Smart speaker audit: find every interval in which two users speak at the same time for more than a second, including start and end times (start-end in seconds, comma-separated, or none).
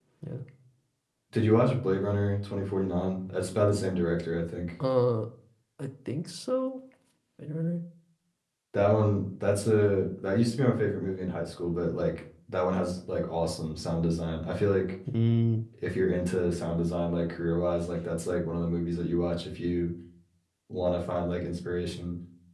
none